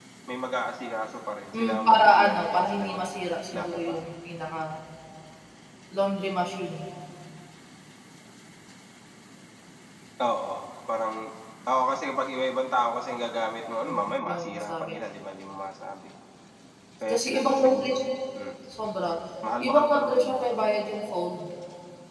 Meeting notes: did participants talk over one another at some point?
Yes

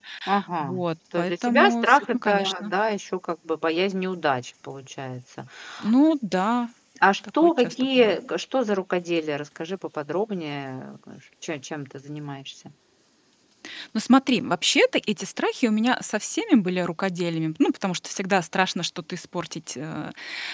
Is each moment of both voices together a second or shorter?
No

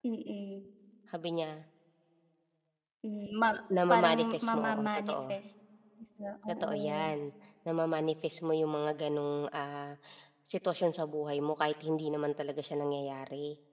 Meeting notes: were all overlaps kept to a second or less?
No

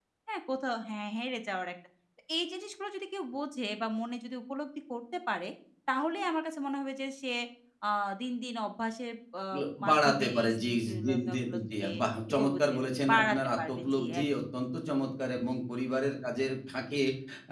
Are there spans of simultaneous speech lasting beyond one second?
Yes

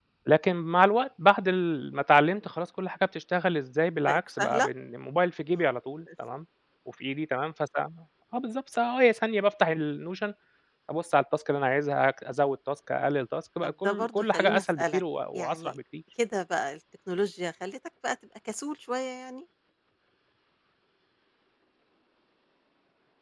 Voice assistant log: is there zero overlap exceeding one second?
No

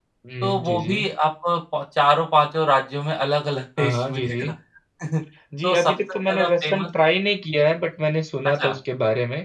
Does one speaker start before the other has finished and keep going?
Yes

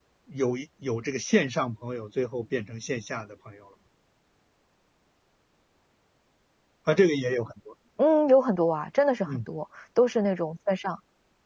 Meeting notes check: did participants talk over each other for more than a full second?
No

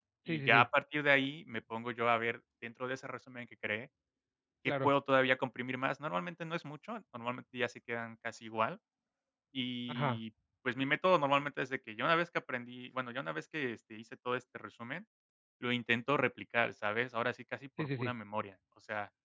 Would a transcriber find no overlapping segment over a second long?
Yes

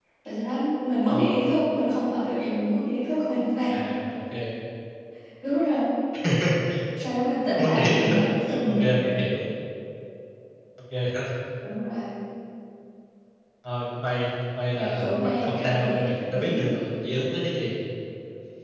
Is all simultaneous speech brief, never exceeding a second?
No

